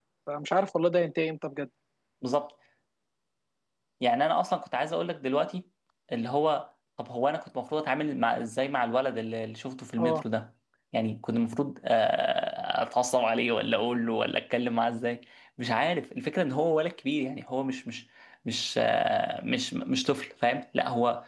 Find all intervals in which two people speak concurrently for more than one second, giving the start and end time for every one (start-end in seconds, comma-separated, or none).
none